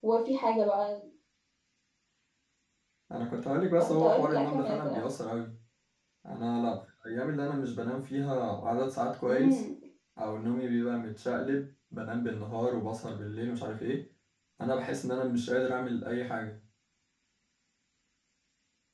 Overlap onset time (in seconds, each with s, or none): 3.8 s